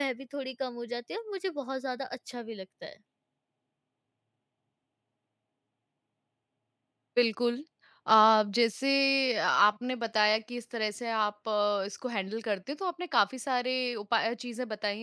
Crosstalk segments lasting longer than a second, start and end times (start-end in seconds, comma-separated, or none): none